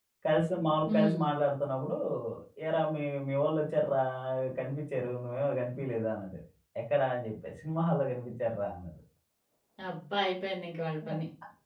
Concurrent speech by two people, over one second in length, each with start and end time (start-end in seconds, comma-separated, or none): none